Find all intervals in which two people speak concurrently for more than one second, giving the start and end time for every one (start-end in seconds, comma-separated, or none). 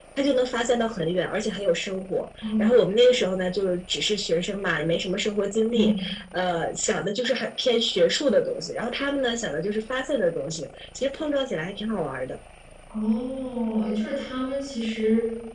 none